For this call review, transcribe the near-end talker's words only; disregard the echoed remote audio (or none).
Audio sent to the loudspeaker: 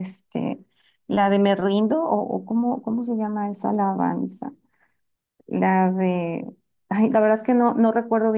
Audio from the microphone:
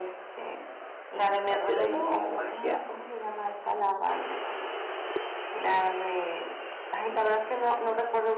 hacer ahí magia,